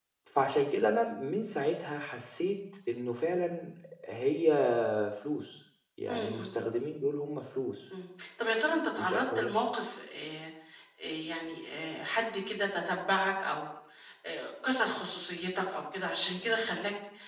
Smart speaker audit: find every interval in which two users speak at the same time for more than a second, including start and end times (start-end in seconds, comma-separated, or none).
none